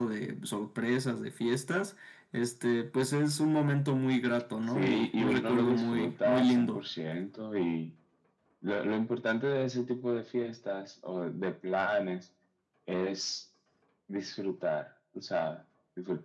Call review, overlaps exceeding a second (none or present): present